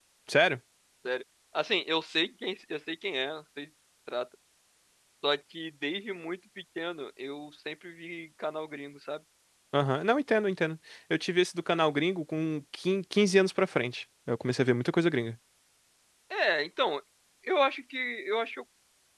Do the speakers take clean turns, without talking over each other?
Yes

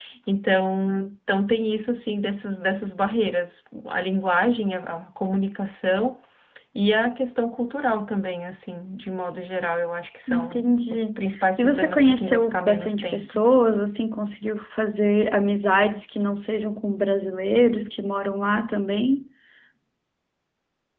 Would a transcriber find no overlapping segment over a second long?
No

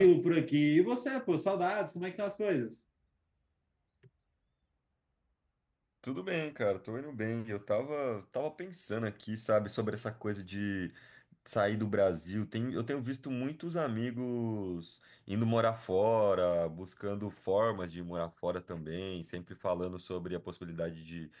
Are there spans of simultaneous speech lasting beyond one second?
No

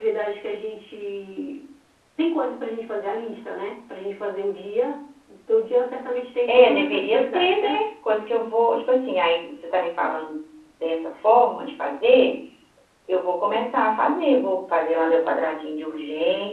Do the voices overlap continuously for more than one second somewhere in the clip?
Yes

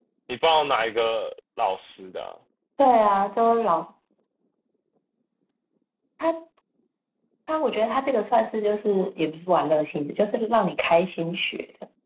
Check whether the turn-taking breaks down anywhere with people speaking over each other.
No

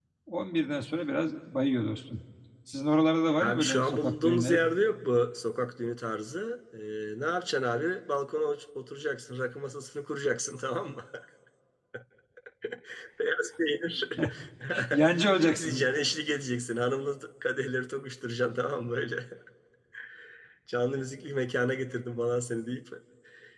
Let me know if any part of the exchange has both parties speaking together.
Yes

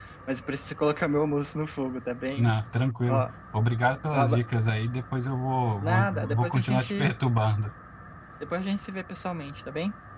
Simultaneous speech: Yes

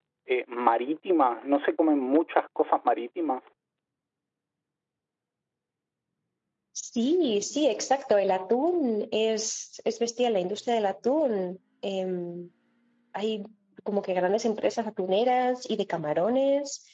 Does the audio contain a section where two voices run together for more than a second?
No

